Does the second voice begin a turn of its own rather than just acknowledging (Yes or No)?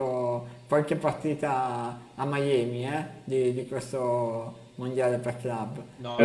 Yes